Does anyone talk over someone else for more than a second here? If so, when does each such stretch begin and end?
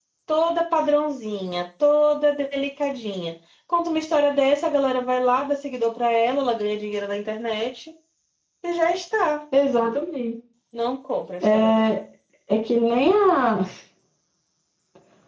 none

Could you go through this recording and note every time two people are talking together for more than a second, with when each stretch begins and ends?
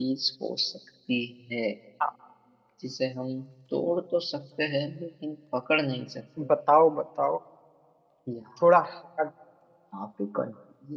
none

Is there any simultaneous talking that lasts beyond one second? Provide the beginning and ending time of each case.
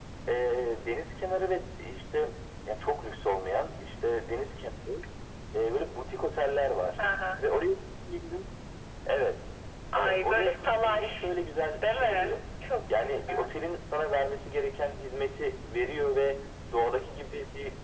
10.0-11.3

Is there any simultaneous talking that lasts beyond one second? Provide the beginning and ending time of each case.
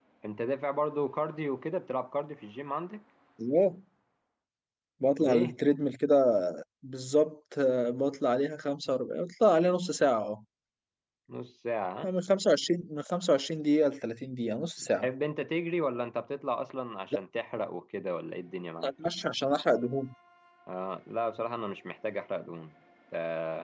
none

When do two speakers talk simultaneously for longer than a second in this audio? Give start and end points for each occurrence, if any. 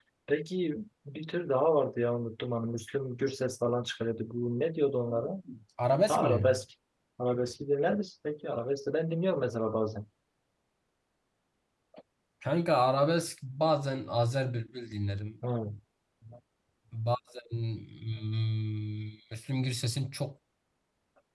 none

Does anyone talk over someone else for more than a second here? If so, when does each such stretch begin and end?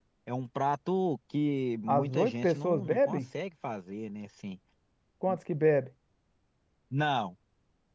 1.9-3.2

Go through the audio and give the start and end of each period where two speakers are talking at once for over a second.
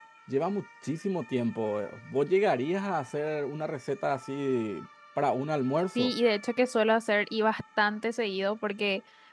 none

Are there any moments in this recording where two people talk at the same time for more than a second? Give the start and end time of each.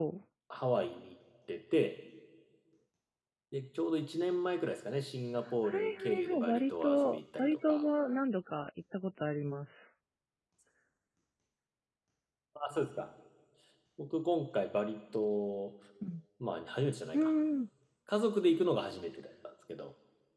5.7-7.8

